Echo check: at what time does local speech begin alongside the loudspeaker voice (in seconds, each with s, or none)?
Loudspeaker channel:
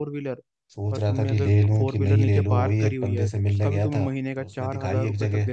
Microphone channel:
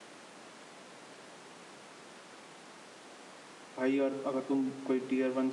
3.8 s